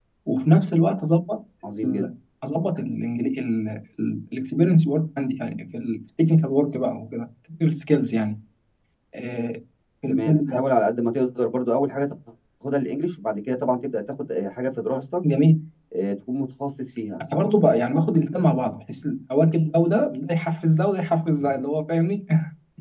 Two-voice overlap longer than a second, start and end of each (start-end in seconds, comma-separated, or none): none